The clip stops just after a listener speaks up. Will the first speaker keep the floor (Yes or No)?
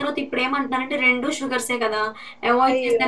No